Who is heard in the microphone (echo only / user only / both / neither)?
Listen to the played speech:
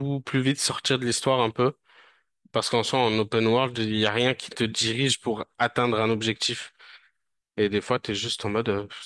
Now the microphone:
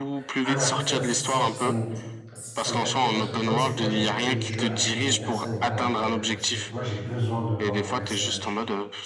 both